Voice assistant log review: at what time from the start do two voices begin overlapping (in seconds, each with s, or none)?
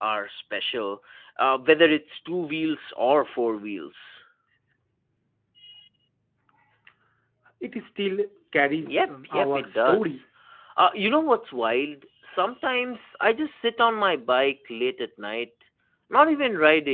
8.8 s